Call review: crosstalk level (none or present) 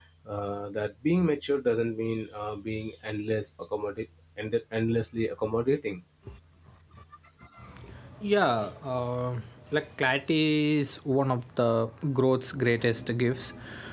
none